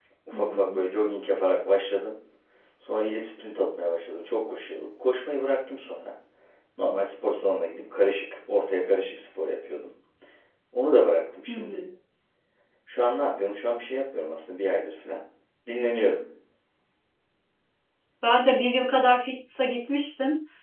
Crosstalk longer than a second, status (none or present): none